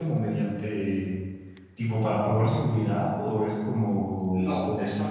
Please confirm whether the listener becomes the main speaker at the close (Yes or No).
Yes